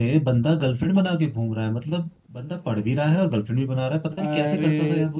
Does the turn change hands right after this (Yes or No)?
Yes